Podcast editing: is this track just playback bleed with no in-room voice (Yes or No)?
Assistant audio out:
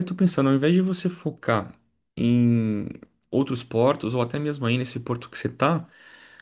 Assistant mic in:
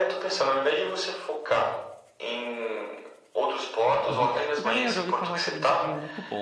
No